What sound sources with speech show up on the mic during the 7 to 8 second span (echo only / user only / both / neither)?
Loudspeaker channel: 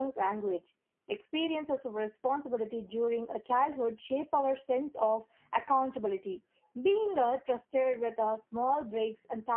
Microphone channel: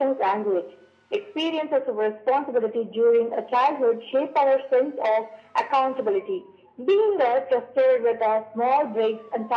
echo only